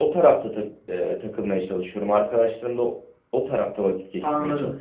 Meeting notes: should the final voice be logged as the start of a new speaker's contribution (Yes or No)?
Yes